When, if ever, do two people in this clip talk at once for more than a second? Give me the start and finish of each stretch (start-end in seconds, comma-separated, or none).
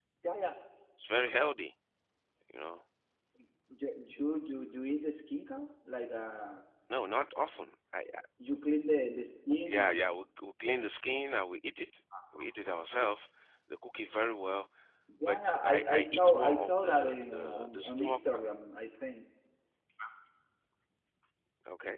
15.2-18.2